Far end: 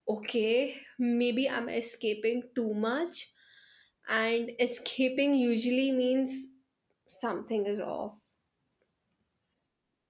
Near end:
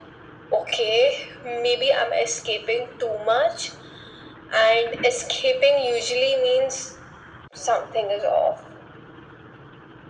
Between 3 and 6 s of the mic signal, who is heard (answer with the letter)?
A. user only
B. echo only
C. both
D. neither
B